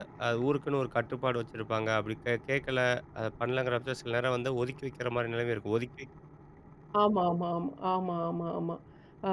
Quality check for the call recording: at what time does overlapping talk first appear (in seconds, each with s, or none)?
none